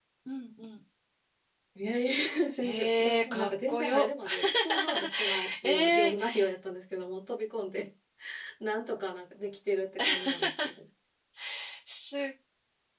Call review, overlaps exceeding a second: present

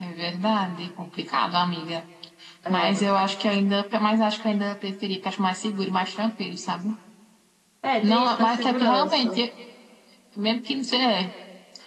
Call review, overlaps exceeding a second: present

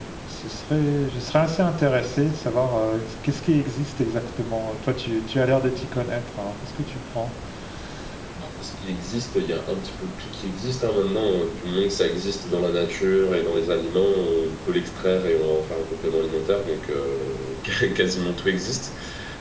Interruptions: none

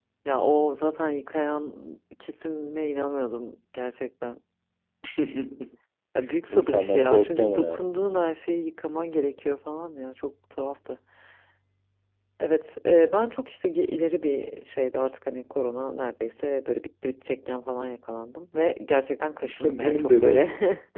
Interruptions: present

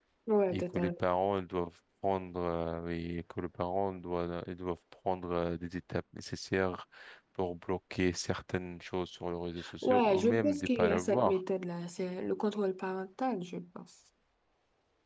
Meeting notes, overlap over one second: present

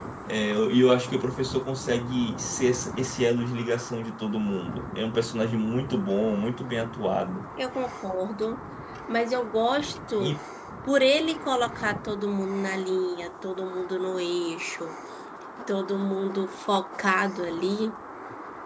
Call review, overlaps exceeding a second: none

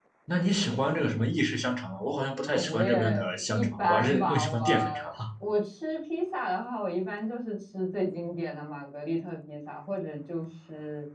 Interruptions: present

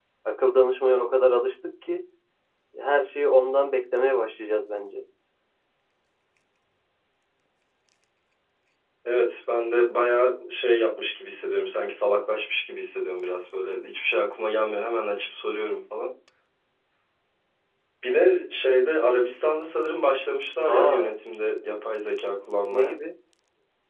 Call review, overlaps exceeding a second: none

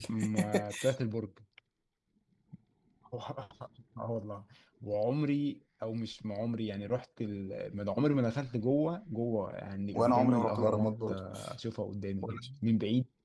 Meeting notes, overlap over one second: present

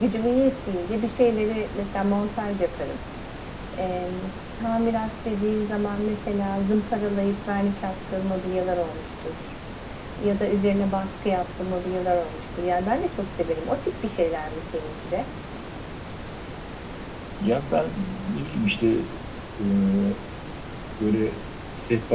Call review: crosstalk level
none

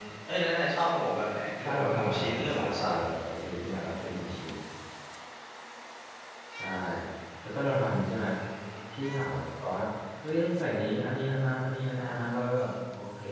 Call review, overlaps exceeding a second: present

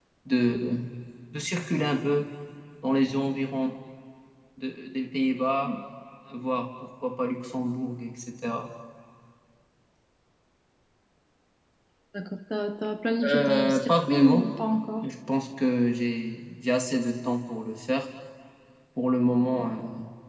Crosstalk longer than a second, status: present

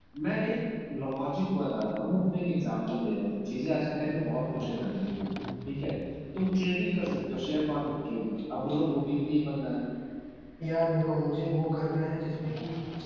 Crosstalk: none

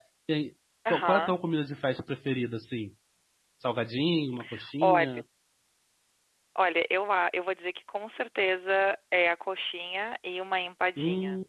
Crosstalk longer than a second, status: none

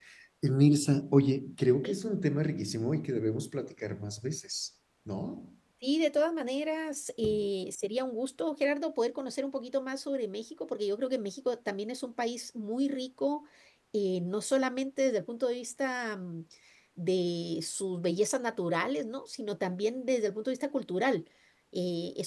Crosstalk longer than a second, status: none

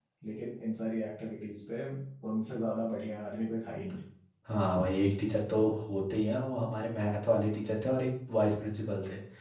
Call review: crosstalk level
none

